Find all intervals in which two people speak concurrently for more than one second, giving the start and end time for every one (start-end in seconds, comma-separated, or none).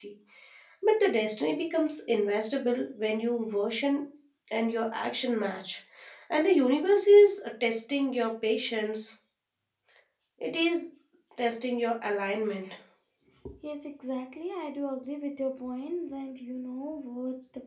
none